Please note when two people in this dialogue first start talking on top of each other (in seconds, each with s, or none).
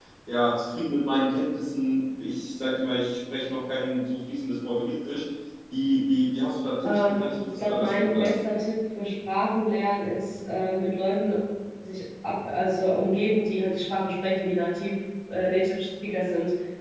6.8 s